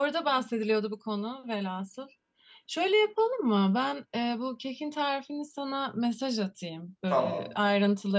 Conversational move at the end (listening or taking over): listening